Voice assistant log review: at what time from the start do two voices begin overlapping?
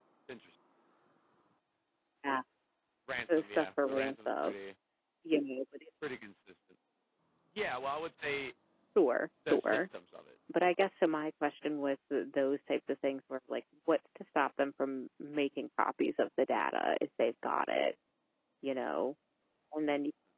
3.3 s

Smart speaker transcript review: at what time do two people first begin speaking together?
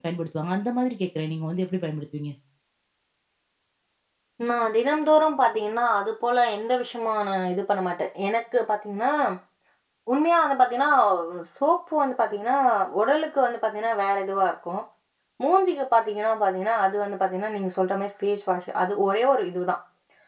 none

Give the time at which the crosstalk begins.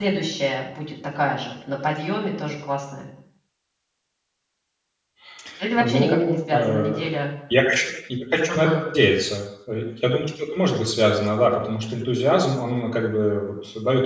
5.8 s

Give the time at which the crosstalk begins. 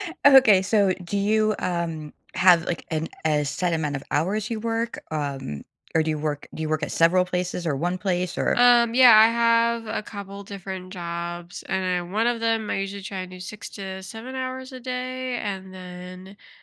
none

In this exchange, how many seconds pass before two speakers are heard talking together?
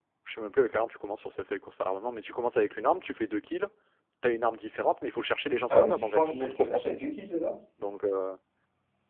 5.7 s

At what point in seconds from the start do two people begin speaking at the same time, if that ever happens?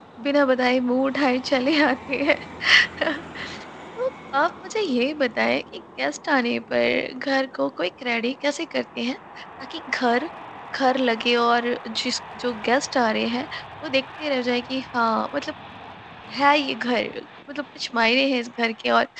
none

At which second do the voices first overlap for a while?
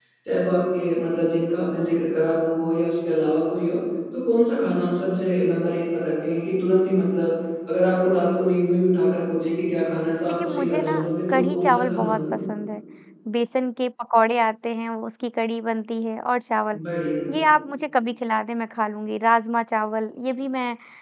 10.2 s

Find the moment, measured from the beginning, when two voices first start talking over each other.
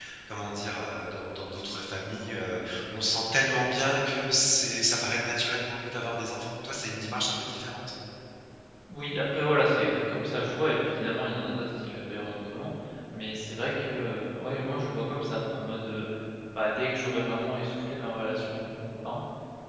none

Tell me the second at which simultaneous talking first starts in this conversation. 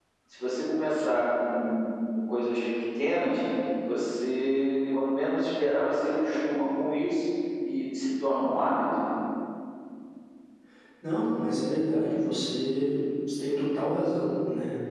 none

